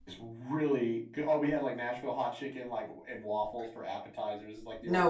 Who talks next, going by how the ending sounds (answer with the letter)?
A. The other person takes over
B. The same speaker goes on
B